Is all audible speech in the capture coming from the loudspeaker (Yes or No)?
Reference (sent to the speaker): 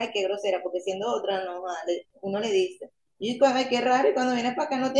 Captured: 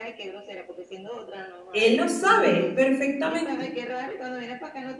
No